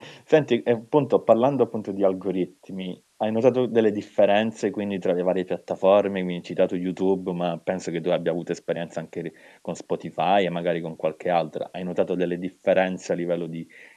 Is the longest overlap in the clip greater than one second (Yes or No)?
No